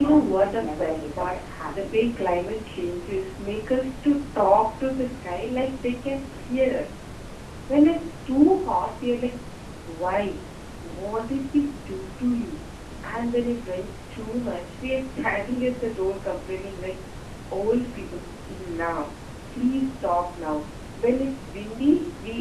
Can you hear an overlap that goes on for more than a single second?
Yes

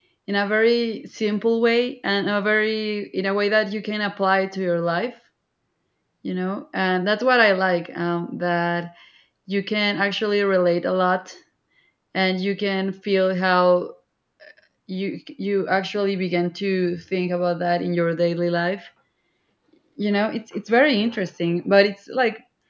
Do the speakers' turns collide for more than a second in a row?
No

